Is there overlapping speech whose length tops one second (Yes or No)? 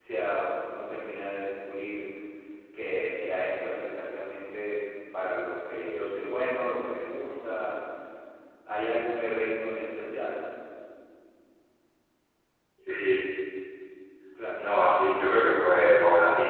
No